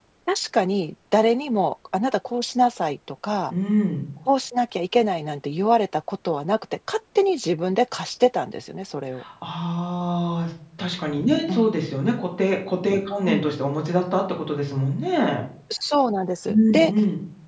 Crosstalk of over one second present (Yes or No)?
No